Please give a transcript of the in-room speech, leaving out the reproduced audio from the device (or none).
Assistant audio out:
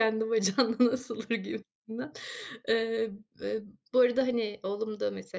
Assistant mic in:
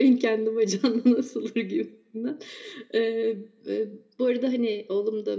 none